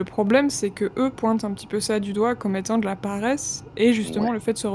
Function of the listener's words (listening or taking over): listening